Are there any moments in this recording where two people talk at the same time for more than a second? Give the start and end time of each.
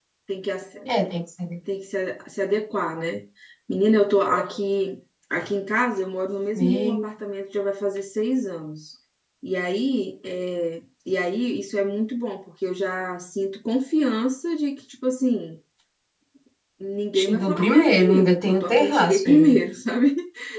17.1-19.6

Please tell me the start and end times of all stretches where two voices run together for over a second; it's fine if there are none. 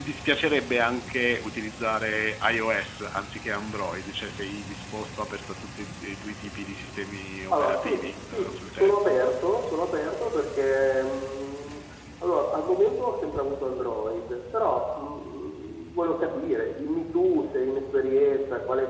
7.5-9.2

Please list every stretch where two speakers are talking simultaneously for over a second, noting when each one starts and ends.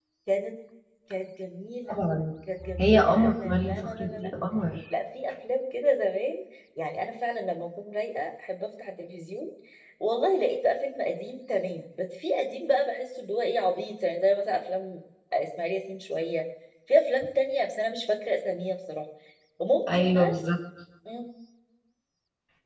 2.8-4.3

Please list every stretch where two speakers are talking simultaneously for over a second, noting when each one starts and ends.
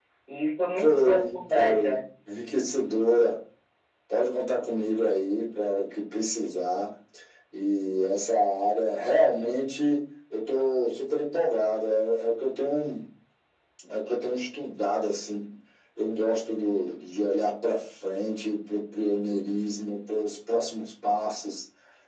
0.8-2.0

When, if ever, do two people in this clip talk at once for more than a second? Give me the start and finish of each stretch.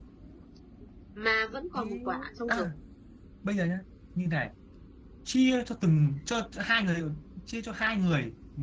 none

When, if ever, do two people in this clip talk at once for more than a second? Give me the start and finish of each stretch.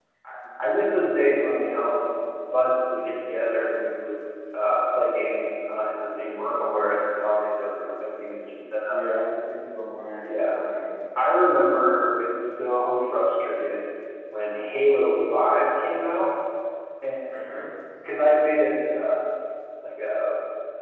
none

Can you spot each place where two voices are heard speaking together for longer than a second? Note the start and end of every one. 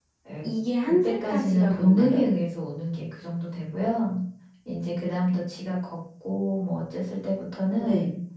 0.8-2.2

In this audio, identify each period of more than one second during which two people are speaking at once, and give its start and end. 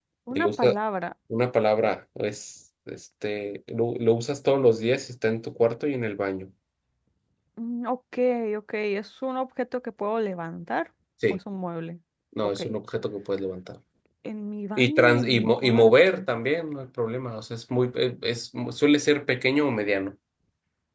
14.8-16.2

